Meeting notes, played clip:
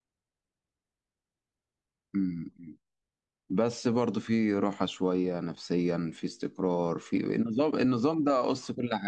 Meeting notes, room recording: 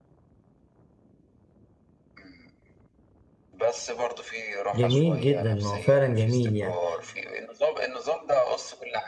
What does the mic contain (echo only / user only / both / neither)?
both